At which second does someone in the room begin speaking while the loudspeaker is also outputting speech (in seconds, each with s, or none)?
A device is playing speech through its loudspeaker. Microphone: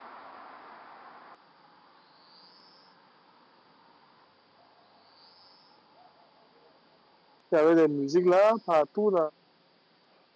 7.5 s